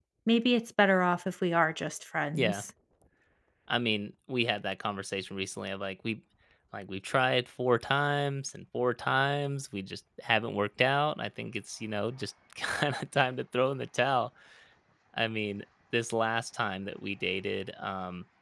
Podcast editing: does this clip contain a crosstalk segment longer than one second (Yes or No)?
No